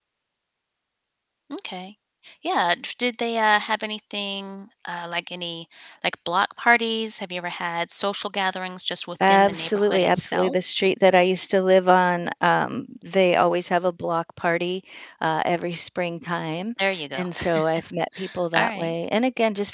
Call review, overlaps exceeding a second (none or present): present